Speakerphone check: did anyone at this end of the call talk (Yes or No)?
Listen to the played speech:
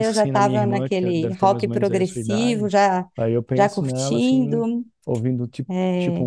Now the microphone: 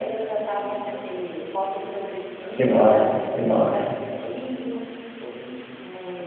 Yes